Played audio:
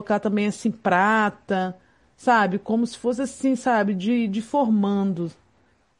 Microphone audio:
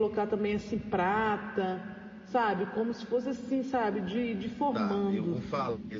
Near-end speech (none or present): present